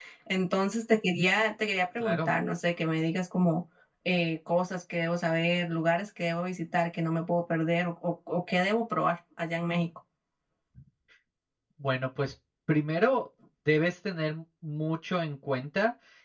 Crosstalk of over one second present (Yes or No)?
No